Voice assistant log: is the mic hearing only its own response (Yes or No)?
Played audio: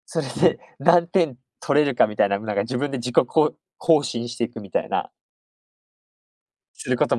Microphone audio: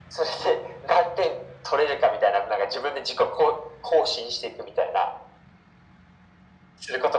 Yes